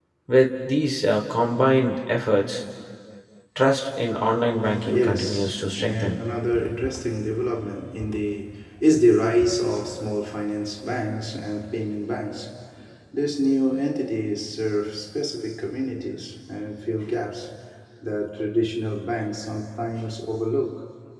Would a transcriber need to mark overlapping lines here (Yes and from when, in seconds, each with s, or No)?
Yes, from 4.8 s